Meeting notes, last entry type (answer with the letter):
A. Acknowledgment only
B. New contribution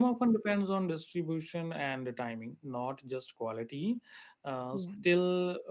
A